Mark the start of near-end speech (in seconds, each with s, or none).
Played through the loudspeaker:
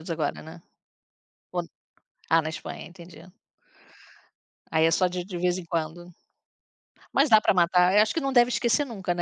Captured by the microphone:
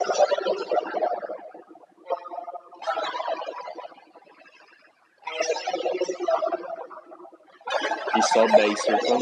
8.1 s